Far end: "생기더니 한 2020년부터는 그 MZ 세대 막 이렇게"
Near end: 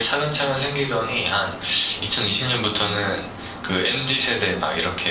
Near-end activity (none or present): none